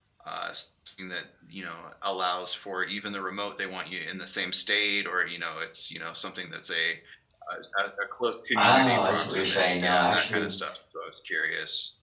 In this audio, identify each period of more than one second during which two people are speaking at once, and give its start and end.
8.6-10.5

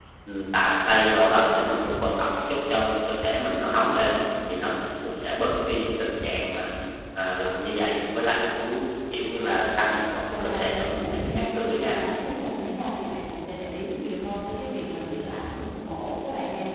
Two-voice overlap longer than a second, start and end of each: 10.3-11.9

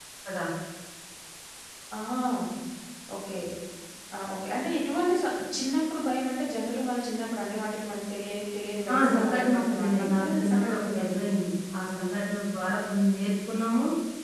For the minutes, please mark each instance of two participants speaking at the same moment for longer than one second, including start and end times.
8.9-11.3

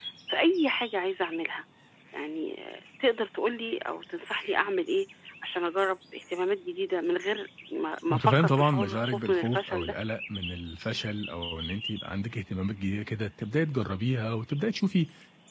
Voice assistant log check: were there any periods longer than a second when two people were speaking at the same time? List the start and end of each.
8.1-9.9

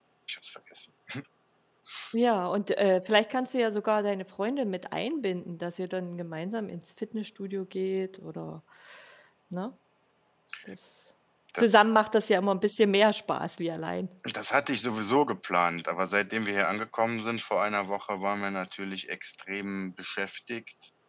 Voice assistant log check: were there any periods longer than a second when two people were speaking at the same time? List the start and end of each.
none

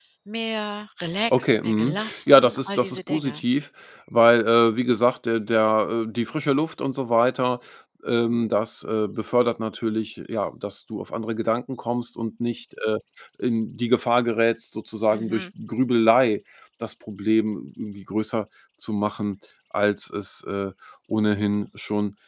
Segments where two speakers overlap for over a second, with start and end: 1.3-3.4

